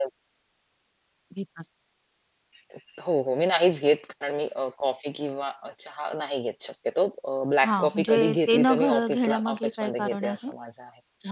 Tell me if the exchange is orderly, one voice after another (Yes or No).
No